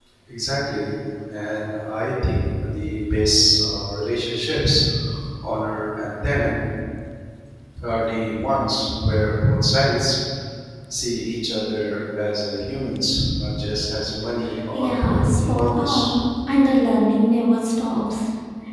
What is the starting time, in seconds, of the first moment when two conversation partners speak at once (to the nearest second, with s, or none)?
15 s